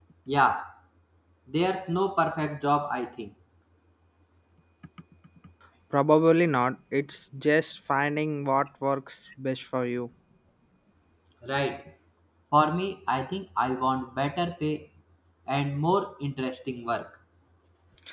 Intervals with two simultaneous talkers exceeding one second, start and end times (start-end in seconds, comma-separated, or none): none